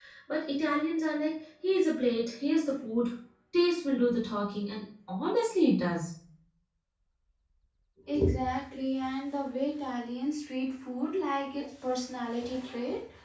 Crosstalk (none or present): none